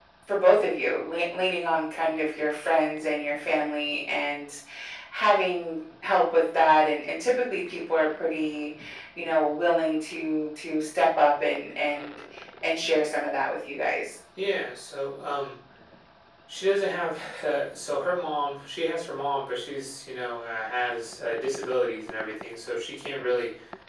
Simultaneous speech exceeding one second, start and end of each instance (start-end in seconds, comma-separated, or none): none